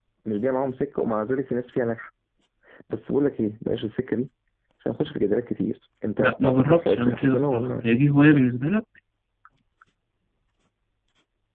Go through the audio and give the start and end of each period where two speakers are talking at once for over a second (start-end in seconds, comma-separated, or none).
6.2-7.9